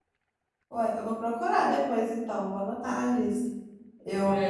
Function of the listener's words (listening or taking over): taking over